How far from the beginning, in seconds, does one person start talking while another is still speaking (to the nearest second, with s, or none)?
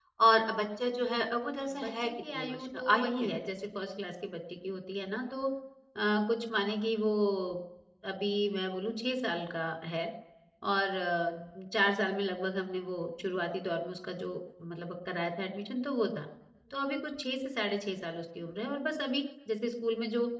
2 s